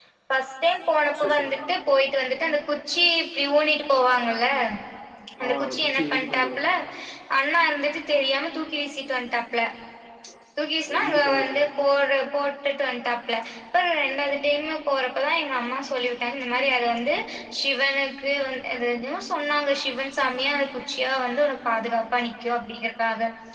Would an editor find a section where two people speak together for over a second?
Yes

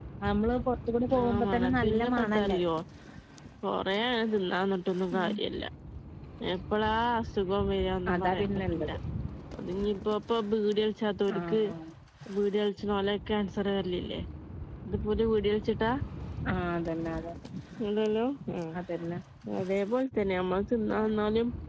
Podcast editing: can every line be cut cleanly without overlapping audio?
No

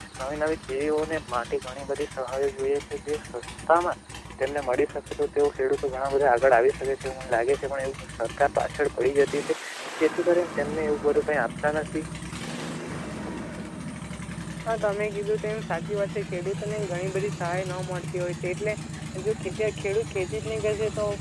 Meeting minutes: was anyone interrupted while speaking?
No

